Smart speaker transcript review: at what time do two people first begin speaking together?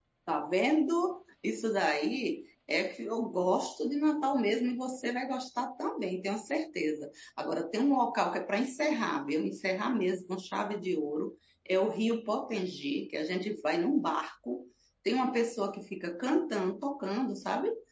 none

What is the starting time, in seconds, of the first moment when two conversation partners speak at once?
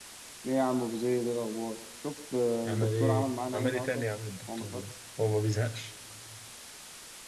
3 s

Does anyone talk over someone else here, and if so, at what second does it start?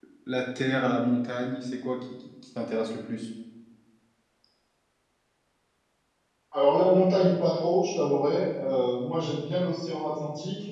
none

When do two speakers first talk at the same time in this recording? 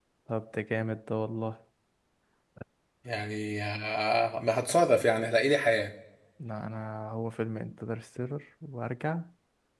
none

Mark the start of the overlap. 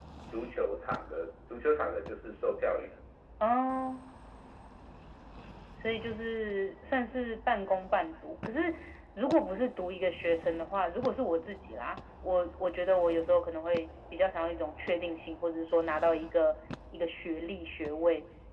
none

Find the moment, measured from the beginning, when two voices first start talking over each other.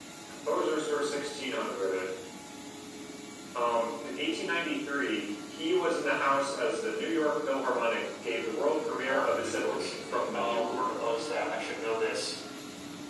9 s

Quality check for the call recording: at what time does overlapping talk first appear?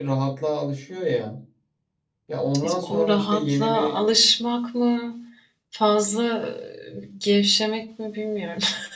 3 s

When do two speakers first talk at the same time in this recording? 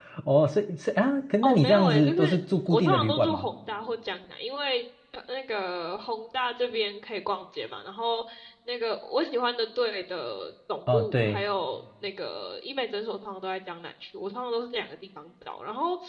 1 s

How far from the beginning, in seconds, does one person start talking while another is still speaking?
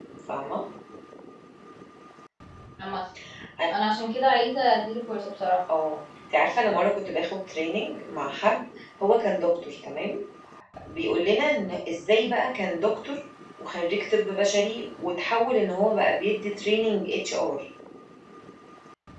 none

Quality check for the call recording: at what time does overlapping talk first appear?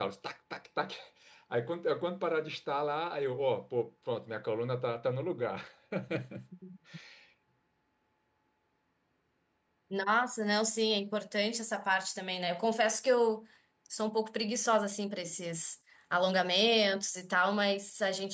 none

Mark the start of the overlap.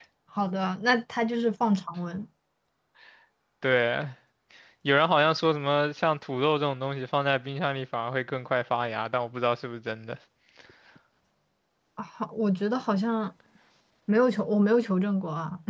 none

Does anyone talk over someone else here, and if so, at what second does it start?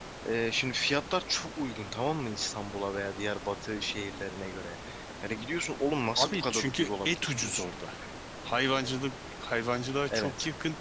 6 s

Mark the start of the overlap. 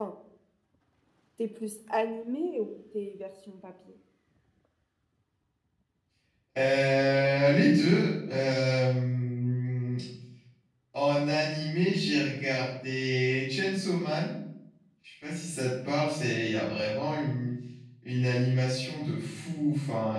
none

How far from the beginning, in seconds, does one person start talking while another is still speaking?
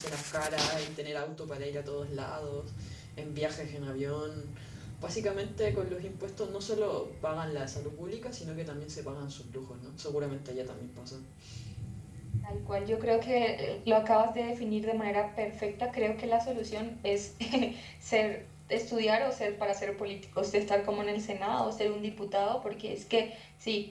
none

